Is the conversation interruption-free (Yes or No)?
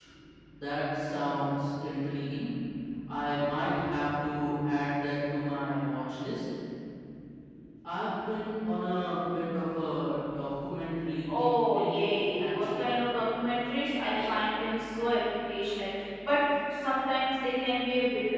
No